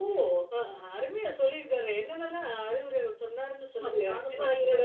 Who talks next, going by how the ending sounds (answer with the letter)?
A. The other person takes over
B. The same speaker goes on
A